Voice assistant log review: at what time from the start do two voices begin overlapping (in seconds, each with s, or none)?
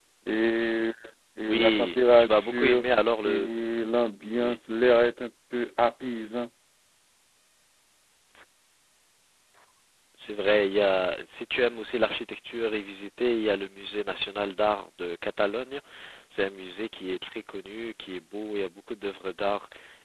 1.5 s